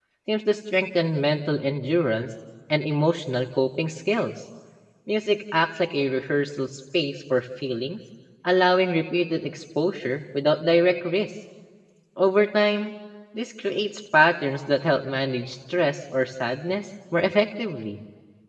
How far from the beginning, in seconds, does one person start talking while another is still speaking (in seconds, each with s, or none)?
none